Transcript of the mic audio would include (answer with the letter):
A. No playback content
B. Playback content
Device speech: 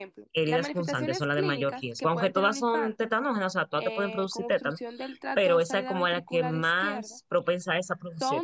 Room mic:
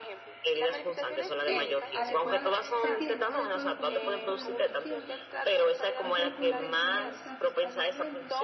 B